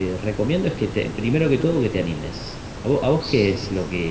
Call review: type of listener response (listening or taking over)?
listening